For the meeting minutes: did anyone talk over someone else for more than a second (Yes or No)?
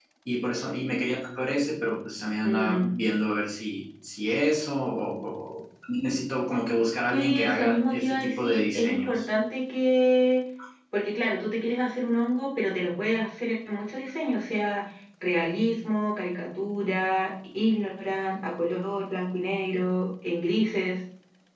Yes